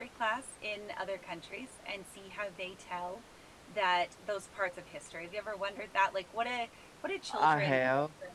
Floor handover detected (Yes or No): No